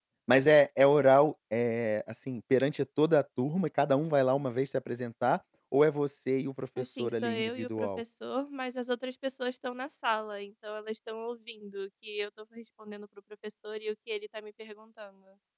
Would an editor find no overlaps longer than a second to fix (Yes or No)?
No